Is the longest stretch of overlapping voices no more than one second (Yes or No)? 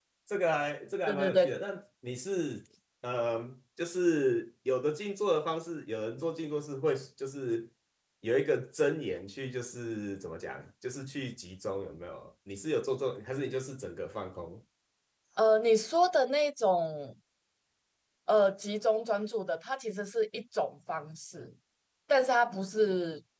Yes